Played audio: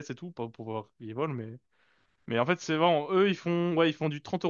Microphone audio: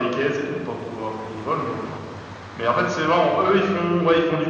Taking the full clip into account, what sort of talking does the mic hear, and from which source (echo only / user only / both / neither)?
echo only